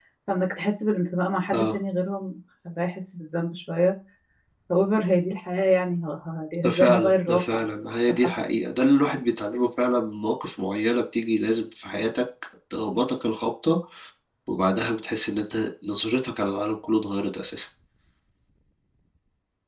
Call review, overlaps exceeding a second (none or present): present